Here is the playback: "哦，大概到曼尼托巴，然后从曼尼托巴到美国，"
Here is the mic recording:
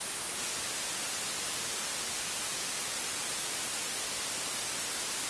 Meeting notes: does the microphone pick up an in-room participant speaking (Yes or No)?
No